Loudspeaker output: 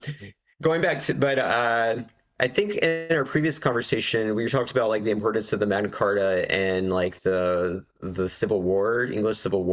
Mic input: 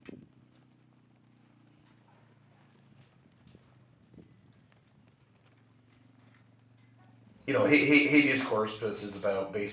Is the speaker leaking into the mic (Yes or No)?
No